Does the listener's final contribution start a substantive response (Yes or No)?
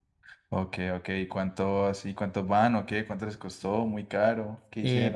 Yes